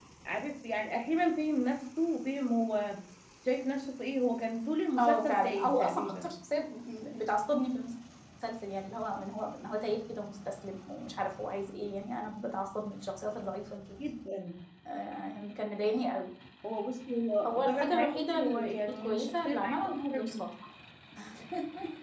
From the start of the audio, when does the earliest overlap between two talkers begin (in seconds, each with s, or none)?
5.0 s